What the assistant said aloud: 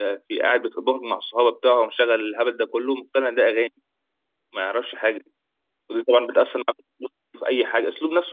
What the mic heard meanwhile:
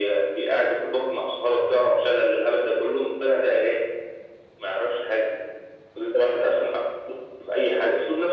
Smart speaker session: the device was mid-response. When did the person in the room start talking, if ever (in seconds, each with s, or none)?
none